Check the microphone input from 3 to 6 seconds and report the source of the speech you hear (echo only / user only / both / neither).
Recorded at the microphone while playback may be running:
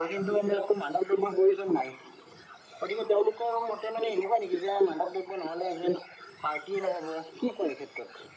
echo only